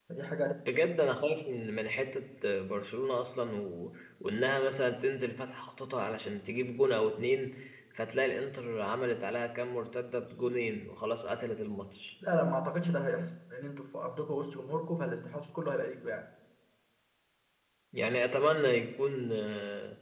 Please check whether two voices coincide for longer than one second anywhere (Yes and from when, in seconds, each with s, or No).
No